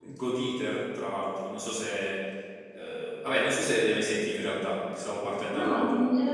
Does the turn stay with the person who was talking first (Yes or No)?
No